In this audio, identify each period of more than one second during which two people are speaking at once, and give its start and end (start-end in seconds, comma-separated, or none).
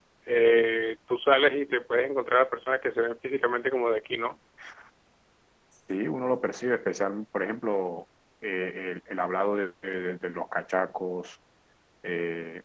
none